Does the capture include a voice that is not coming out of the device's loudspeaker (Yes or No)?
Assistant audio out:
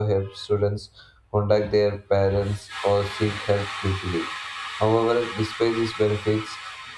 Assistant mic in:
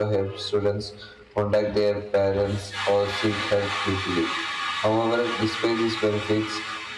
No